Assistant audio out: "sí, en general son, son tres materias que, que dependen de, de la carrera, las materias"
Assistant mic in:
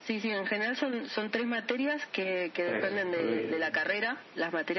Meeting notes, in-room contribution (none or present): present